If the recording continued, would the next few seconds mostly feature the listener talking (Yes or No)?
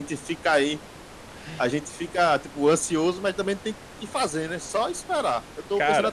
No